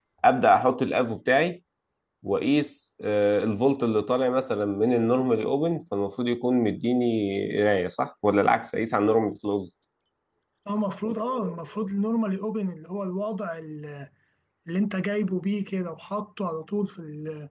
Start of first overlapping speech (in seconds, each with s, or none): none